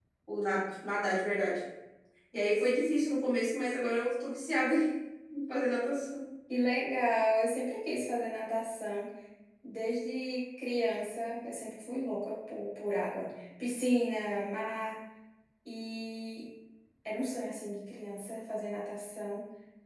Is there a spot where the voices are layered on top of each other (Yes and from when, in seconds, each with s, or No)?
No